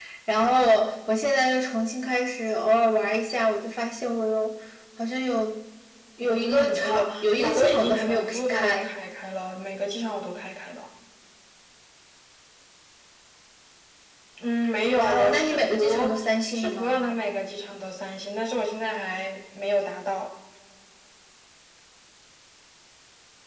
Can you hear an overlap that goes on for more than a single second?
Yes, from 6.2 s

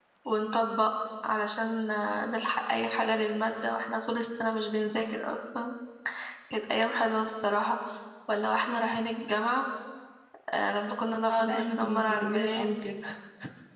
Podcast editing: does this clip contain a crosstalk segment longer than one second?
Yes, from 11.4 s

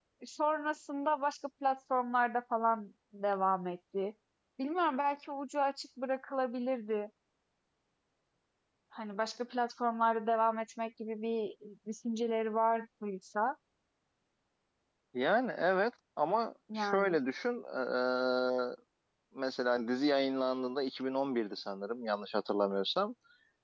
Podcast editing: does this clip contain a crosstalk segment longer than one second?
No

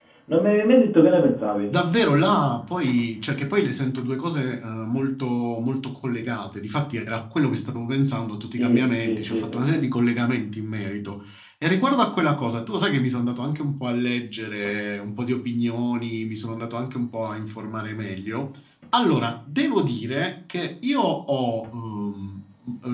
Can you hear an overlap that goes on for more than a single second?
Yes, from 8.6 s

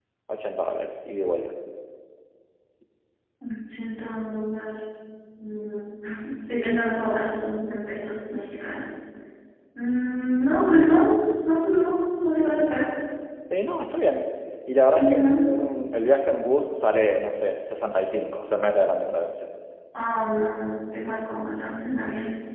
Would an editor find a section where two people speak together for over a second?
No

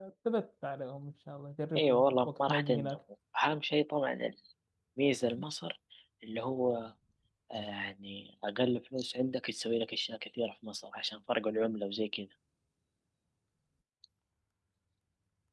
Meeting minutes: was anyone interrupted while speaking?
Yes, from 1.8 s

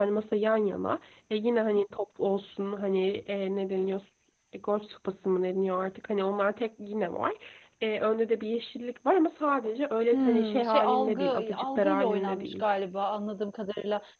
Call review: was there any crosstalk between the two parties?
Yes, from 10.1 s

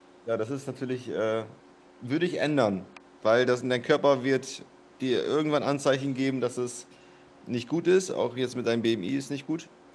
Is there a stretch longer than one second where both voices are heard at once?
No

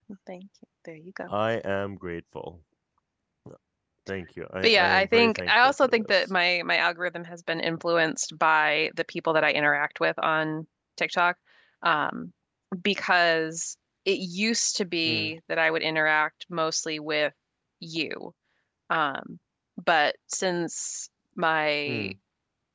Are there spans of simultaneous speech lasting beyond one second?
Yes, from 4.6 s

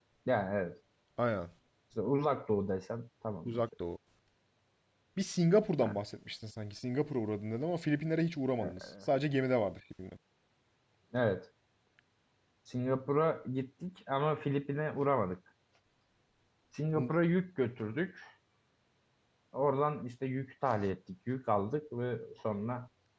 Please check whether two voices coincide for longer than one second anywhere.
No

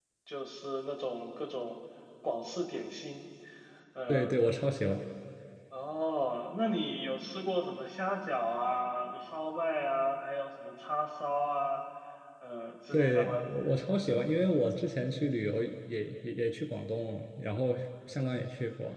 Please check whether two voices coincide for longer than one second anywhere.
No

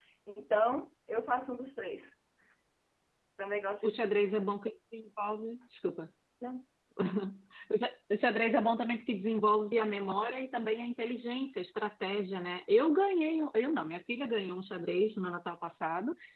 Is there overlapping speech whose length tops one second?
No

